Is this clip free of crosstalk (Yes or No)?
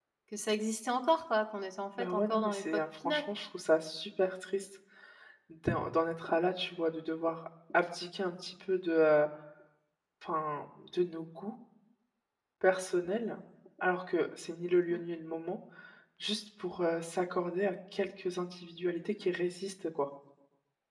No